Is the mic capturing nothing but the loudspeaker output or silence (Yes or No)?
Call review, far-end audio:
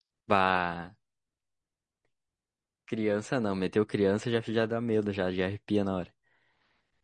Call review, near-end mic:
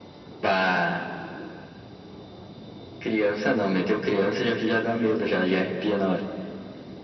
Yes